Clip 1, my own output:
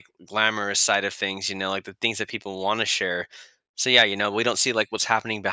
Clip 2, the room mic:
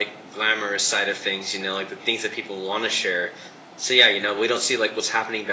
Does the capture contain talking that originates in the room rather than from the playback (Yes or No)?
No